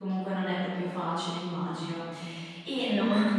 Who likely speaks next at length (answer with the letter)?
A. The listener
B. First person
B